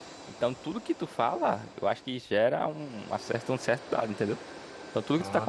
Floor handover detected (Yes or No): No